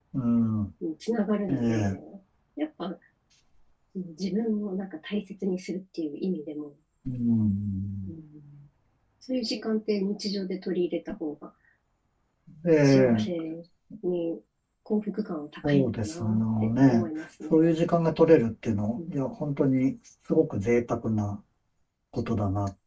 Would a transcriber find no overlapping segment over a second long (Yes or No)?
No